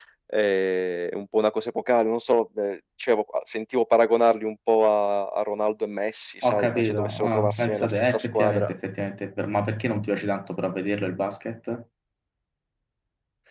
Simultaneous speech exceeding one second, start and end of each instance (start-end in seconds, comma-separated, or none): 6.5-8.7